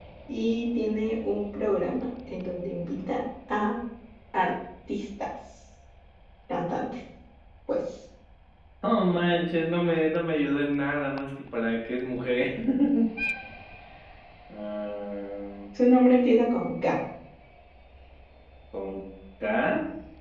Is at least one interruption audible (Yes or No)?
No